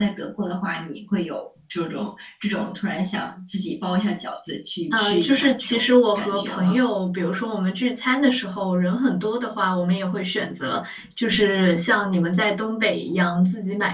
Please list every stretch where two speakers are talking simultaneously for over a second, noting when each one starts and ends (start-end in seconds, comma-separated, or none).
4.9-6.8